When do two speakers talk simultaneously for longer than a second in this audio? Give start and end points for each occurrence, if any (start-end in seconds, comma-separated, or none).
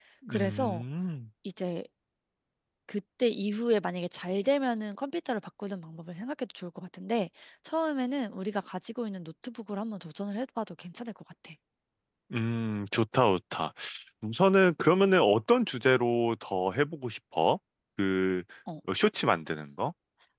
none